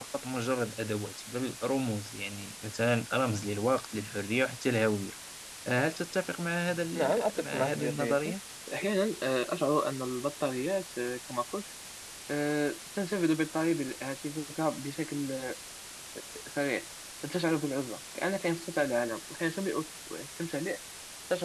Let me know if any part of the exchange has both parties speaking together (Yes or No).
Yes